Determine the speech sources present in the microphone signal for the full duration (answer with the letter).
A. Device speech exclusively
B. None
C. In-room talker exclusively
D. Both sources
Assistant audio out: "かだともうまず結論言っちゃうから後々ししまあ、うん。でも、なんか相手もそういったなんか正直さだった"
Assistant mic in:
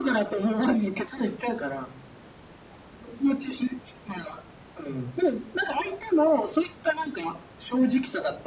A